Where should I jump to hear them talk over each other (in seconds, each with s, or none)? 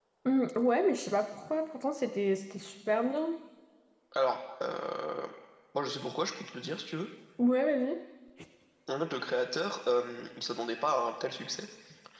none